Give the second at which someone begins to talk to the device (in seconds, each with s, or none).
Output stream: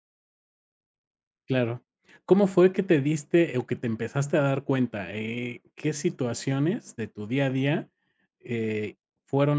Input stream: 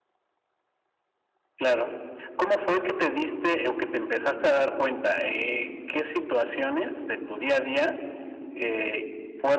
none